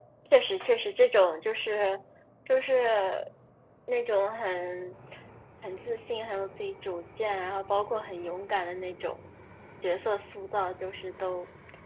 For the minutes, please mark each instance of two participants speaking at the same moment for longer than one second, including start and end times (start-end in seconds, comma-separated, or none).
none